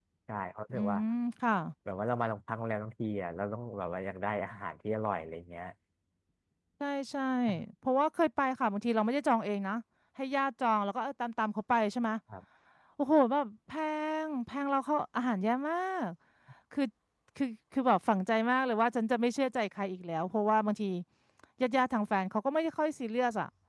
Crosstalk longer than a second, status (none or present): none